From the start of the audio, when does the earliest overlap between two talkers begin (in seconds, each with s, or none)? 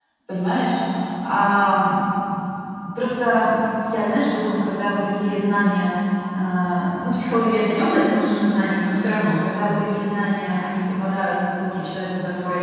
none